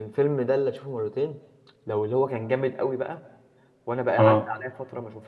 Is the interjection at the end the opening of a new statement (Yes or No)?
No